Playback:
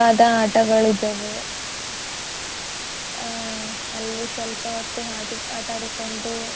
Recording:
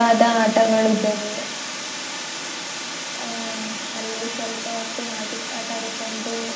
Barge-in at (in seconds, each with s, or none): none